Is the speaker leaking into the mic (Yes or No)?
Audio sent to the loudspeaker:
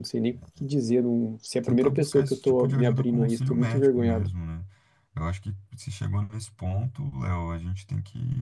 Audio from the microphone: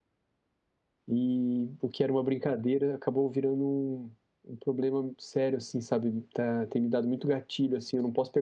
No